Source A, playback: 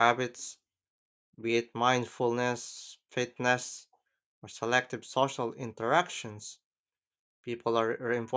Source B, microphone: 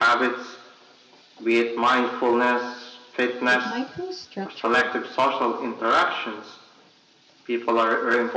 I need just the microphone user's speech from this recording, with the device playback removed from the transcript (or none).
It might feel structured,